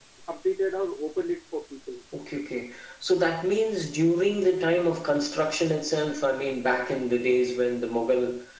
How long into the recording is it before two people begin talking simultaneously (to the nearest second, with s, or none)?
none